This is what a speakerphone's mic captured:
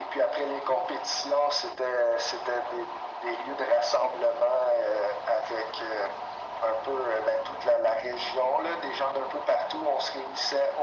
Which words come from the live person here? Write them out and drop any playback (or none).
none